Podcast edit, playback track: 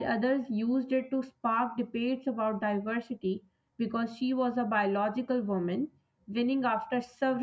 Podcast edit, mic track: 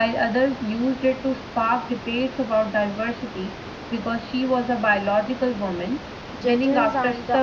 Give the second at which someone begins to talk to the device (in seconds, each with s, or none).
6.3 s